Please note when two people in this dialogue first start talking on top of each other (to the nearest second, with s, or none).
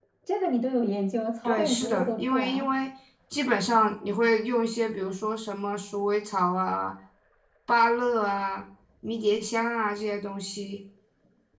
1 s